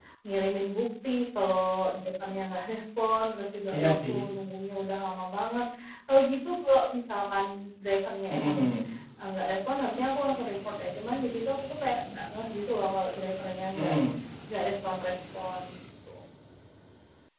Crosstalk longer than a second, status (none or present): none